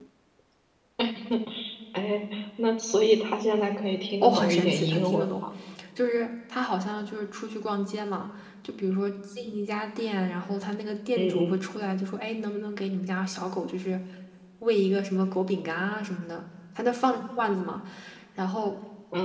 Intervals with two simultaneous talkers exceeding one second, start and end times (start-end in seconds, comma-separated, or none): 4.2-5.4